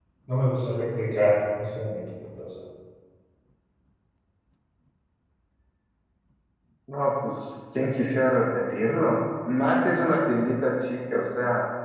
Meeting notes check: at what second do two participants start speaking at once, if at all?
none

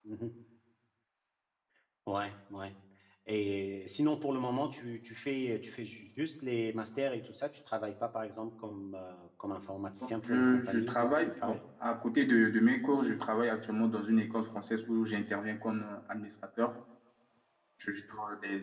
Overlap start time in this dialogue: 10.0 s

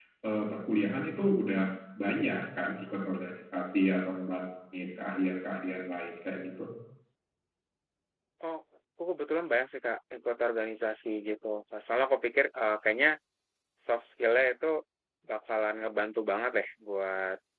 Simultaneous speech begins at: none

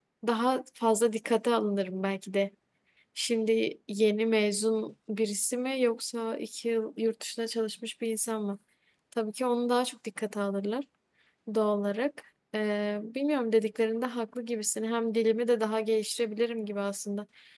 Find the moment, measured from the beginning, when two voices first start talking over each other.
none

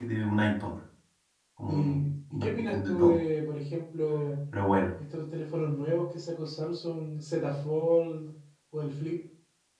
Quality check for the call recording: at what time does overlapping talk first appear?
1.7 s

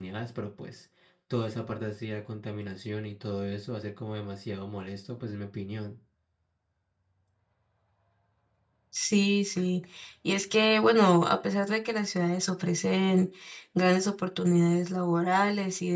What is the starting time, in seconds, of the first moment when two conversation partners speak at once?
none

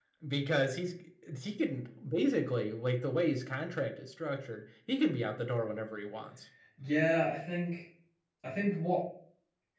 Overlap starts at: none

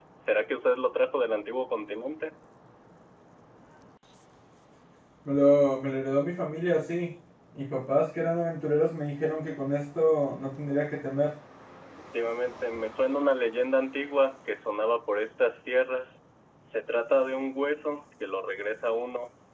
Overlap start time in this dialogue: none

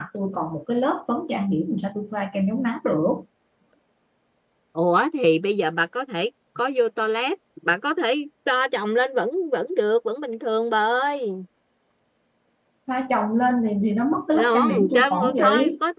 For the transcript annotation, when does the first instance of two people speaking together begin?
14.3 s

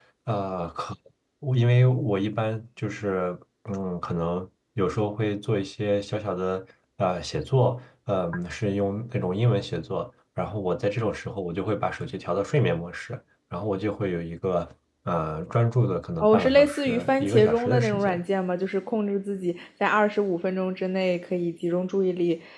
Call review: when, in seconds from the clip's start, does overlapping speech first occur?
16.2 s

